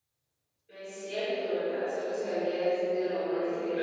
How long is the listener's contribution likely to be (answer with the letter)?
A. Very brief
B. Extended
B